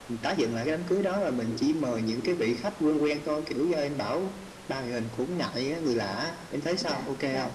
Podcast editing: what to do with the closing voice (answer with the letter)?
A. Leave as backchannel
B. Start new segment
B